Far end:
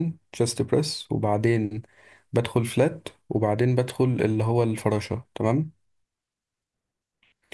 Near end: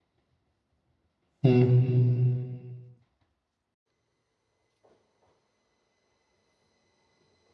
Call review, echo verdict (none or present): none